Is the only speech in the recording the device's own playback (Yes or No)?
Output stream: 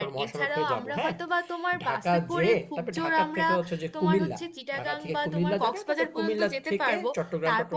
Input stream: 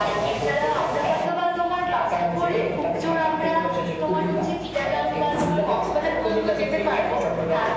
Yes